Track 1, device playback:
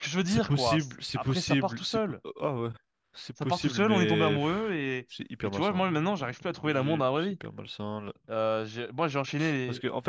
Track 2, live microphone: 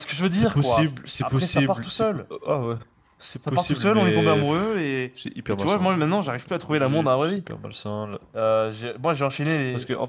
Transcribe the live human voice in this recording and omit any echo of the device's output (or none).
none